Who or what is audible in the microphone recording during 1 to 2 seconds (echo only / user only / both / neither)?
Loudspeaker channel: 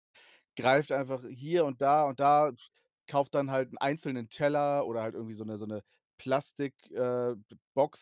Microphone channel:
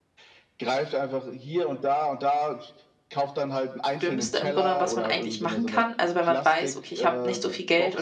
echo only